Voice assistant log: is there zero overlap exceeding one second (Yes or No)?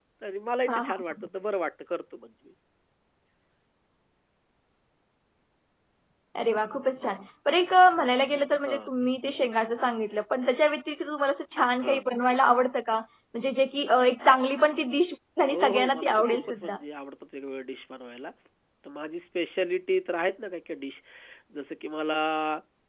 No